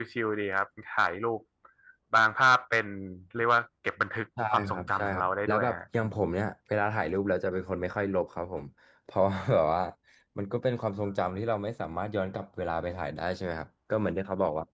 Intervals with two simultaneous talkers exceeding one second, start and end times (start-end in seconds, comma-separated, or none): 4.5-6.2